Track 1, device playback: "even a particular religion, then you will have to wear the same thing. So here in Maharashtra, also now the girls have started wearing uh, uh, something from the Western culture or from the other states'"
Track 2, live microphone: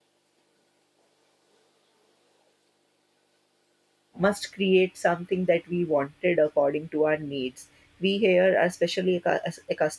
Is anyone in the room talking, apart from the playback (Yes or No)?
Yes